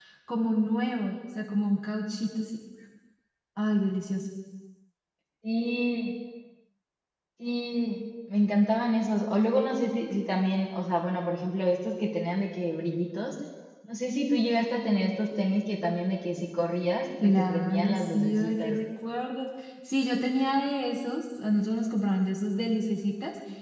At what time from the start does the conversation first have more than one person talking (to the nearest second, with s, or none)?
17 s